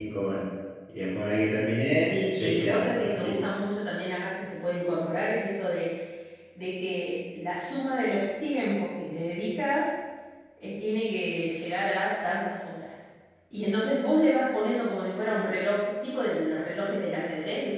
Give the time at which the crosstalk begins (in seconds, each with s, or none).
2.0 s